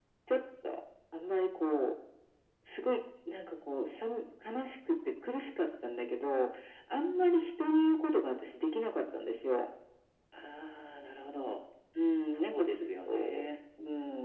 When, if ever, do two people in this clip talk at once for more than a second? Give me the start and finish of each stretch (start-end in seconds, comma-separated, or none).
12.3-13.5